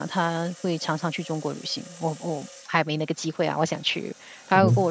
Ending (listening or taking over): listening